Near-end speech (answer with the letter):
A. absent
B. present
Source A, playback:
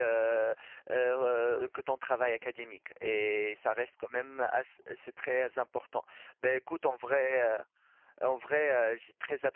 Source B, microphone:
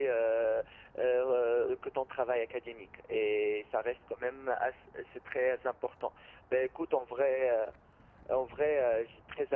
A